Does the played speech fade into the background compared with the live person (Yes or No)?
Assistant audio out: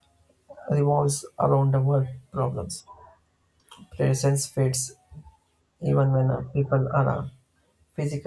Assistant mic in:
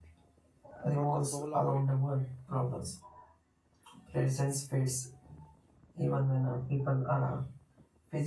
No